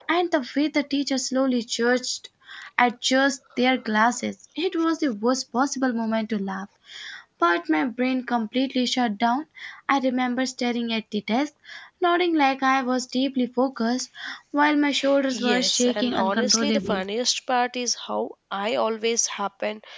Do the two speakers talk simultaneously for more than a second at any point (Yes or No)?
Yes